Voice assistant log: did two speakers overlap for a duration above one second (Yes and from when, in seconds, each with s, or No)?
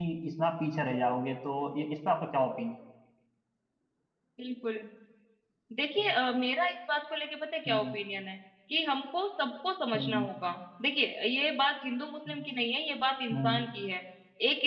No